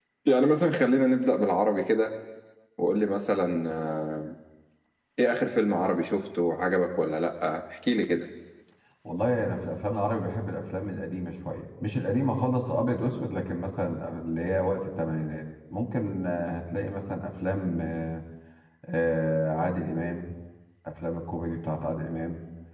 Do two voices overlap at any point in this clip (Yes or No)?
No